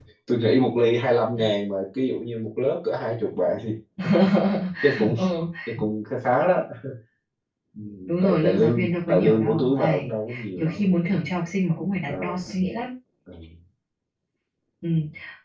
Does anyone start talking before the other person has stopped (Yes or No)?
Yes